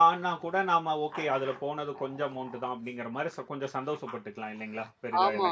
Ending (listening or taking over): taking over